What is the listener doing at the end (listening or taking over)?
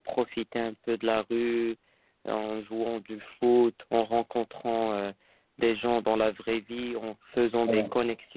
listening